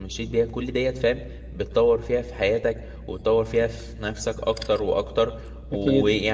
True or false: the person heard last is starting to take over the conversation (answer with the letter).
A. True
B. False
B